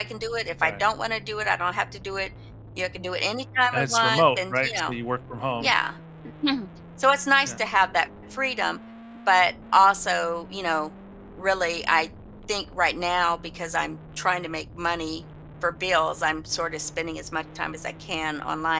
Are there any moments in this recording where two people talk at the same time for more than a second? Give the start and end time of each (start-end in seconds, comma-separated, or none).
3.7-4.9